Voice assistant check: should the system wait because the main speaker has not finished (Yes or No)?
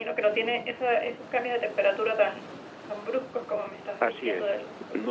No